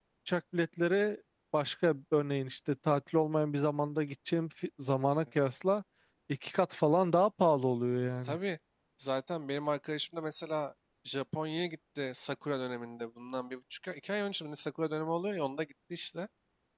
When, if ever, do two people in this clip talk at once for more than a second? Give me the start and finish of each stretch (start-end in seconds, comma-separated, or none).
none